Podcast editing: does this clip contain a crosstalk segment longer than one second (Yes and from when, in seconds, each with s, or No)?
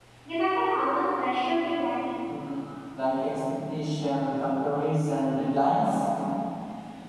No